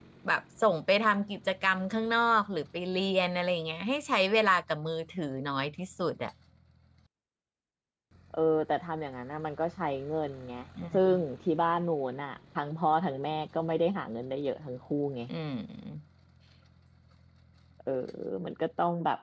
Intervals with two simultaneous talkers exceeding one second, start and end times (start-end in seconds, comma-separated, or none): none